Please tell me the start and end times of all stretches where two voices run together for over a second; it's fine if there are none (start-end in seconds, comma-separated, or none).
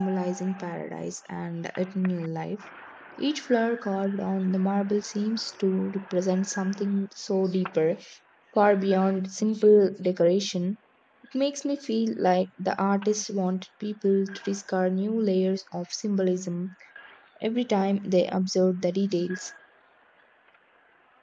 none